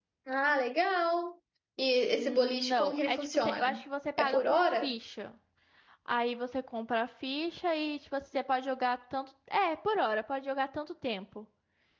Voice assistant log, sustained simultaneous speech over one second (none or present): present